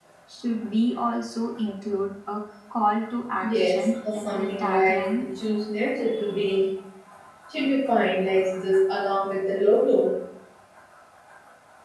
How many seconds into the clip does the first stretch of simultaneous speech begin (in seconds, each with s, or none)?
3.4 s